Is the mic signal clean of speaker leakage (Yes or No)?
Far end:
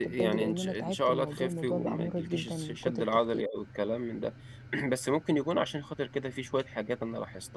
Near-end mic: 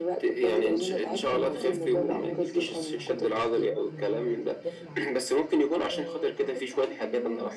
No